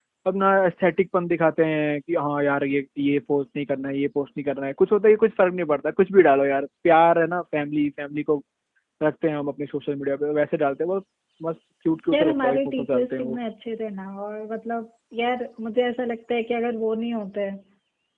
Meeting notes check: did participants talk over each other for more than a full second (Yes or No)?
Yes